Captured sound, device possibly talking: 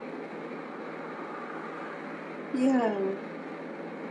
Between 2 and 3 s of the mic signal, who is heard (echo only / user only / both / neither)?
user only